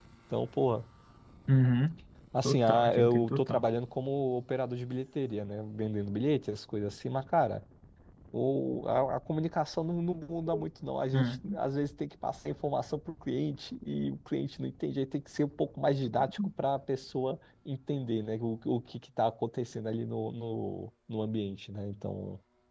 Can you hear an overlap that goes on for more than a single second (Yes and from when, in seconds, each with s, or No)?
Yes, from 2.4 s